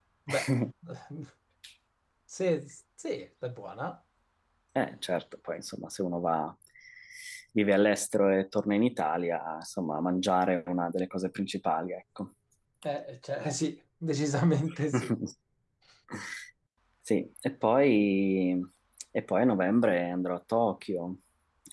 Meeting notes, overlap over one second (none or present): none